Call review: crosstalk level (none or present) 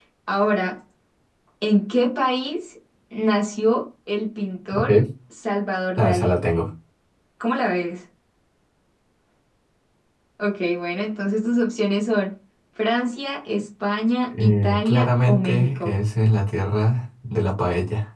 present